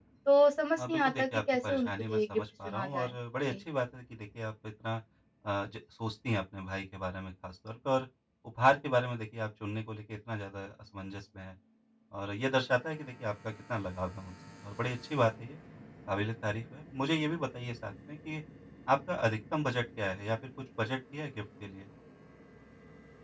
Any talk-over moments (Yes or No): Yes